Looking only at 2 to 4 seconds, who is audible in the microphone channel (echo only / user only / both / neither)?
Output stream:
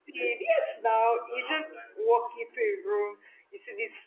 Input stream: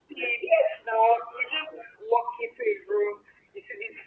echo only